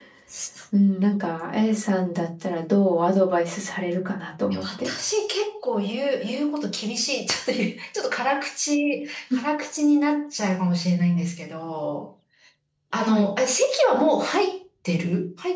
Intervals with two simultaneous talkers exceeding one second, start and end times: none

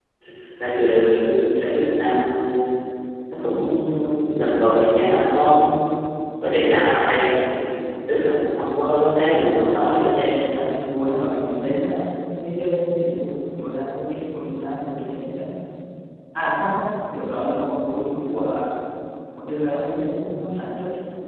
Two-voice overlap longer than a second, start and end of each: 9.1-10.4

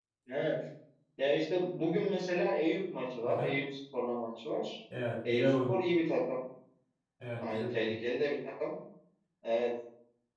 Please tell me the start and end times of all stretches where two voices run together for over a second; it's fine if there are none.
none

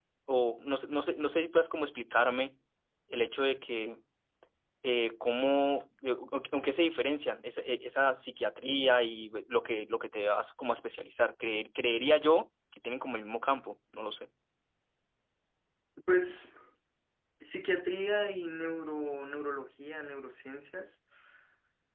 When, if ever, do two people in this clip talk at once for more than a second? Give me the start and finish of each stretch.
none

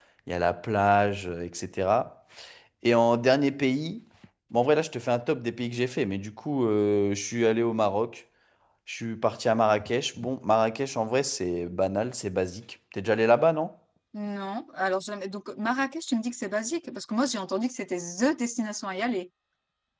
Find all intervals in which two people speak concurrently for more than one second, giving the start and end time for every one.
none

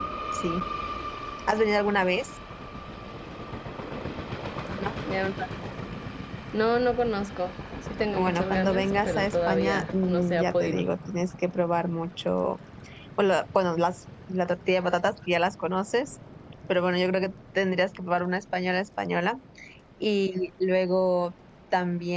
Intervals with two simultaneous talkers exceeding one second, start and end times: 8.1-10.8

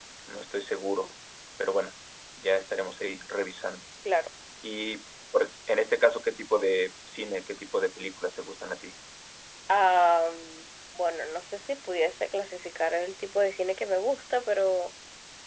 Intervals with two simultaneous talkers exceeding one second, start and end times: none

